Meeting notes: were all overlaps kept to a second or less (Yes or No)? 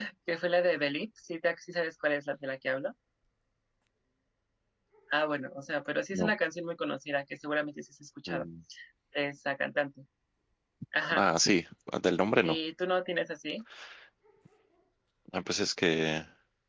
Yes